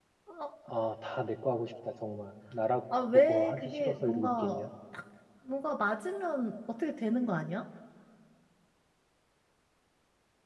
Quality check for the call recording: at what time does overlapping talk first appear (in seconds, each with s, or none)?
2.9 s